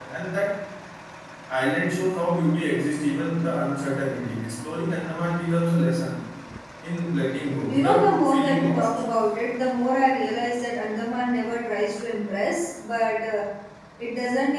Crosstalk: present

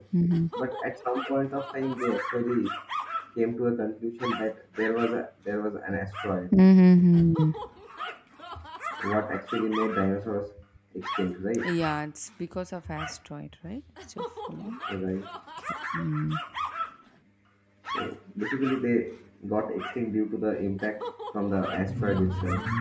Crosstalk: none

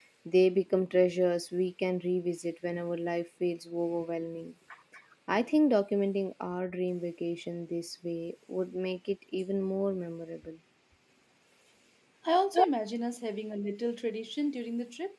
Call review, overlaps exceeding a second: none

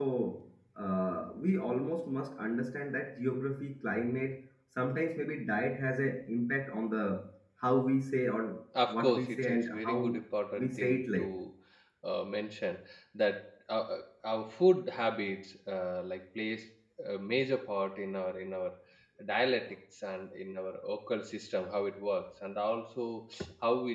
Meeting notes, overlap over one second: present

